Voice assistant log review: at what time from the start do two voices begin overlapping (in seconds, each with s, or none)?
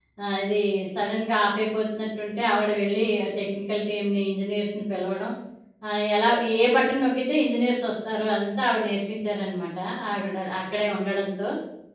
none